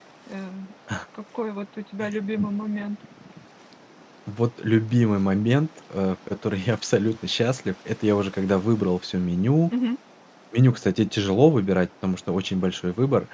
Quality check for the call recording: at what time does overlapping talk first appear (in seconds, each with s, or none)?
none